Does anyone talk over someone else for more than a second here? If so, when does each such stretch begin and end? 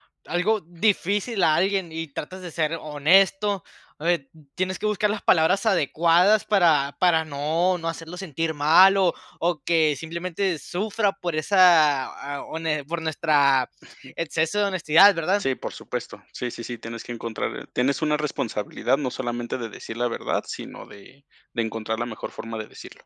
none

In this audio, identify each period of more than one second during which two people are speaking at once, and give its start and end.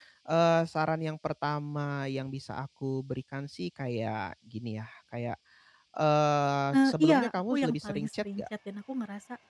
6.7-8.4

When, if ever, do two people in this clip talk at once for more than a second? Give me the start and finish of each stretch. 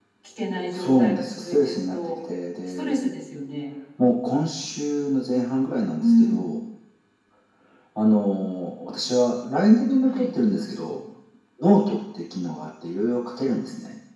0.7-2.0

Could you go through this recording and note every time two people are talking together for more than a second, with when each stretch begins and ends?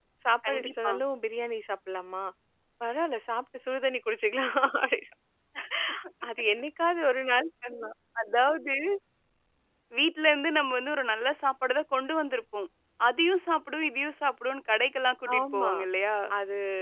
none

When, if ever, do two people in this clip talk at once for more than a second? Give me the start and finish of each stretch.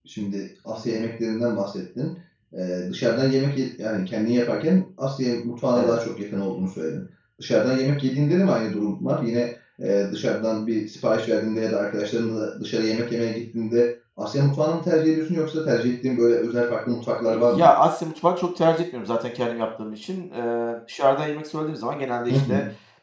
none

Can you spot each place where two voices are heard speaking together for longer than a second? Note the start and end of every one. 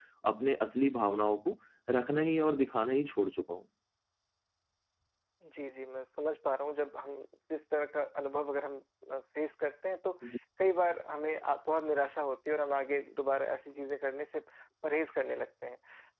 none

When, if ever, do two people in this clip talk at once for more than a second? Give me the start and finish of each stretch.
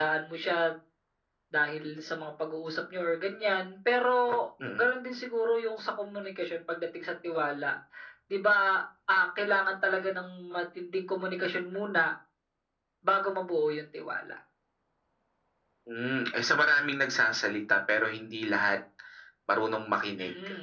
none

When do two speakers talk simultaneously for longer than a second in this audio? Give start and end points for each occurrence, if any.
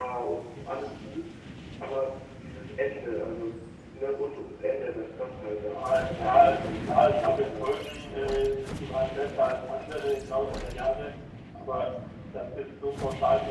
5.6-7.7

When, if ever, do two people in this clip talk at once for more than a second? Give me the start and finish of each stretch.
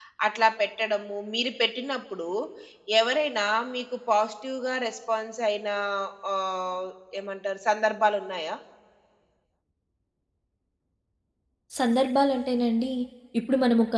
none

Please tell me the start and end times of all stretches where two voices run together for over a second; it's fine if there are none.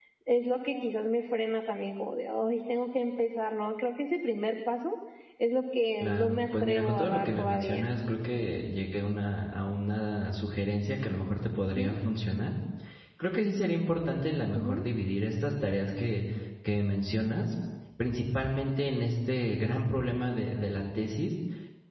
6.0-7.9

